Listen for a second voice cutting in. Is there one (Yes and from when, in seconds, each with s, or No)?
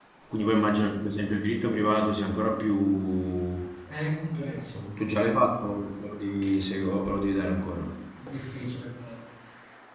No